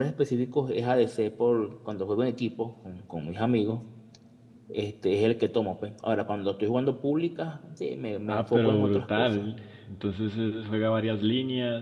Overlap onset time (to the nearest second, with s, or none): 8 s